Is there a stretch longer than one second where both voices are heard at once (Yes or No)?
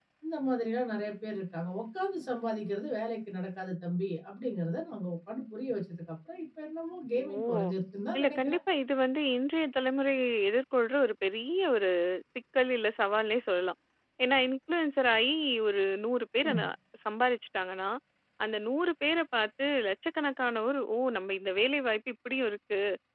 No